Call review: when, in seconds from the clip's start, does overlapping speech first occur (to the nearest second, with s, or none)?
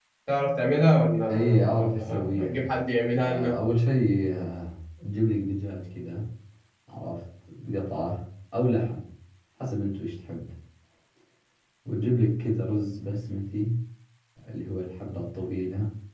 1 s